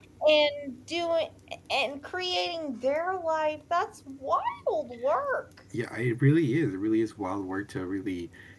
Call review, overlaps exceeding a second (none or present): none